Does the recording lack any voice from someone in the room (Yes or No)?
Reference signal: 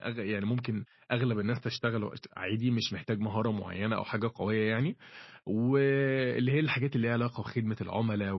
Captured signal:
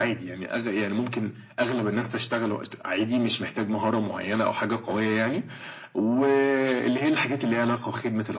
Yes